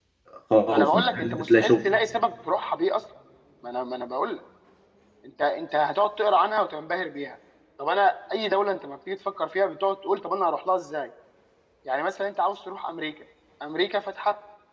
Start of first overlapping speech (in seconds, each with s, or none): 0.7 s